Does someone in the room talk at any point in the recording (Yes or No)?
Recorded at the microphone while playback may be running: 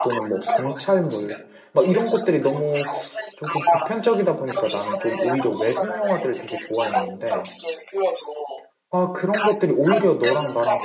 Yes